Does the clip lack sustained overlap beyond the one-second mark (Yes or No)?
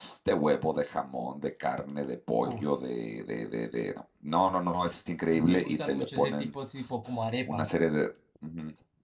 No